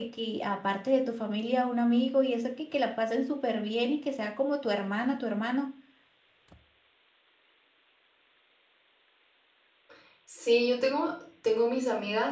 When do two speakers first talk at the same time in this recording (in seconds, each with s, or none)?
none